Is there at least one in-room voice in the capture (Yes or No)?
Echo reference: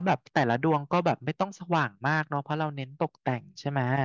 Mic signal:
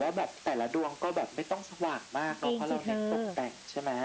Yes